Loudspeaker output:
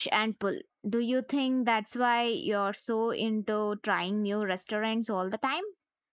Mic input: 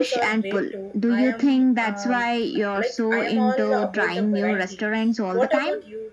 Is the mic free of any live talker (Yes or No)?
No